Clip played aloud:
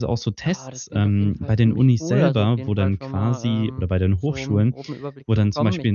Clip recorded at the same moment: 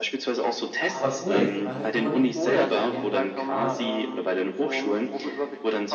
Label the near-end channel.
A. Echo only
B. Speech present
B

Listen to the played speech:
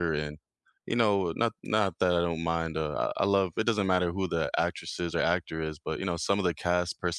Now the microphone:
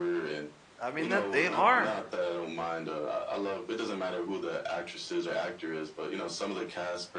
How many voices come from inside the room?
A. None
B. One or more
B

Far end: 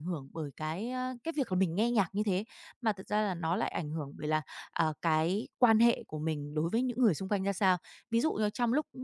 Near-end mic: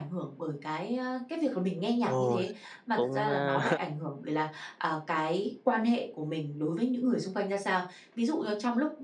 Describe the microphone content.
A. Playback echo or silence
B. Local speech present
B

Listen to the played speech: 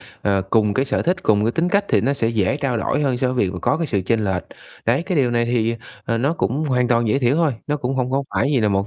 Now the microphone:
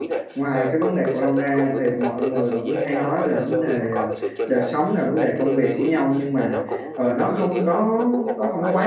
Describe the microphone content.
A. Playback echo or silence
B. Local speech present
B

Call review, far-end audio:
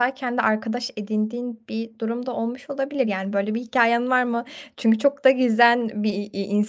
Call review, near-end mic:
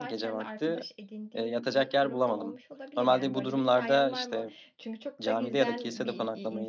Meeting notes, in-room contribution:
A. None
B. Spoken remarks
B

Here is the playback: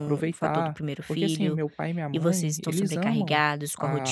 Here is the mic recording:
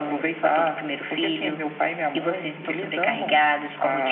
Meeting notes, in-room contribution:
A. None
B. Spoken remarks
A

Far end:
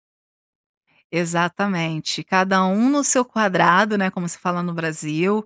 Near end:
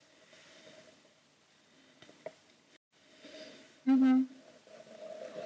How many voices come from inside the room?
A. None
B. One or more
B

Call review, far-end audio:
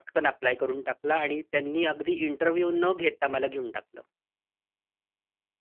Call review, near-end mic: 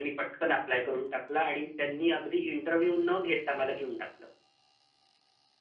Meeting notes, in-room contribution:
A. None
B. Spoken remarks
A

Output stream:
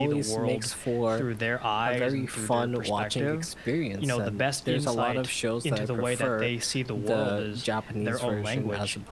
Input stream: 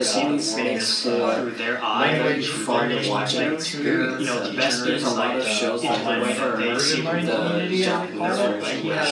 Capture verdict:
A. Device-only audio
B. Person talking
B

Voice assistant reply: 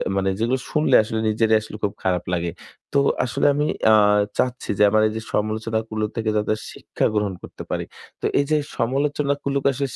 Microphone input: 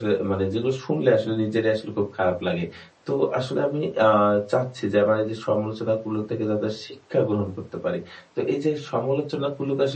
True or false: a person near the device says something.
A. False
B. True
A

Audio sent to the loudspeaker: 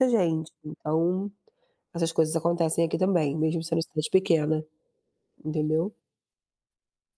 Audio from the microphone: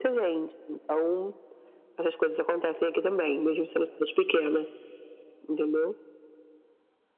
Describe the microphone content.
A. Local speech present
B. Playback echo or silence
B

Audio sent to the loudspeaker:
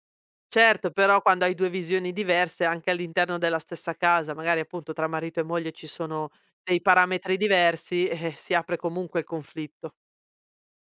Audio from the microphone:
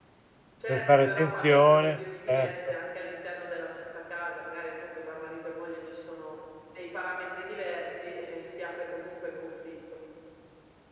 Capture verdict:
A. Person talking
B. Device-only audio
A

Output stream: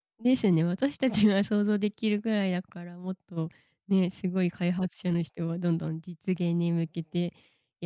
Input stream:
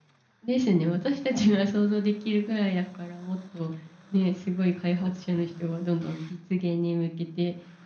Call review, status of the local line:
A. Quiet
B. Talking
A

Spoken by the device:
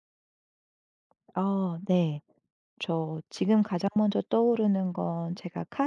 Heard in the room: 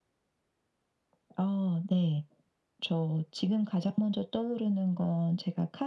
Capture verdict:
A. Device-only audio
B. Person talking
A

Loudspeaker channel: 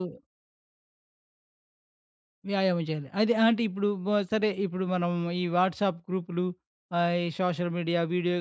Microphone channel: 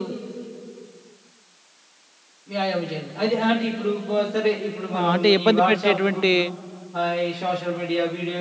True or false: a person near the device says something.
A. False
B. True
B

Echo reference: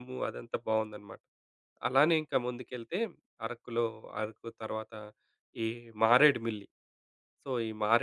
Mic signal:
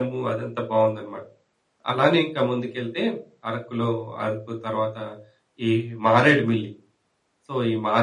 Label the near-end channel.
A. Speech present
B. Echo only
B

